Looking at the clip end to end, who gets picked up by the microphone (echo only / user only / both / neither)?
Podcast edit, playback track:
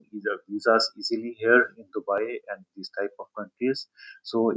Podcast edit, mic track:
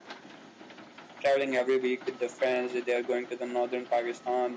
user only